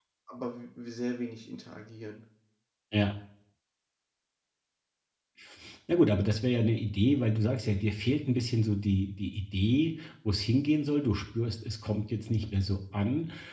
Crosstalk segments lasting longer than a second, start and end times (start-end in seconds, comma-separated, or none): none